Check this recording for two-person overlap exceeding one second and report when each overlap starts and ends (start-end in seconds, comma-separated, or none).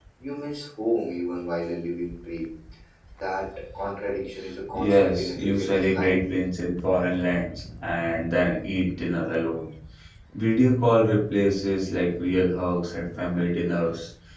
4.7-6.2